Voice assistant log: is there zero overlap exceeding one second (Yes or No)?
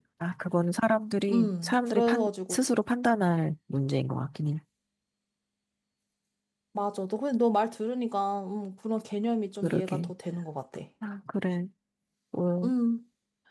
No